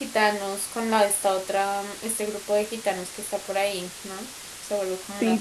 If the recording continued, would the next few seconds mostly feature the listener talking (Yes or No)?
Yes